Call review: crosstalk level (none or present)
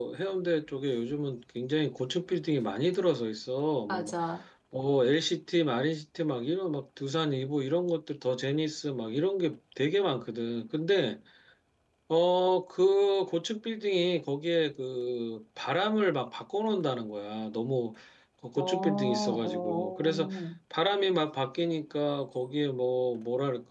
present